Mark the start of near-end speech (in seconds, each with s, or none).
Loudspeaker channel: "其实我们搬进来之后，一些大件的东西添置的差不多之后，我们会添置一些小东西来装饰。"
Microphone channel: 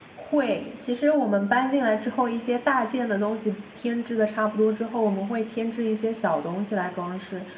none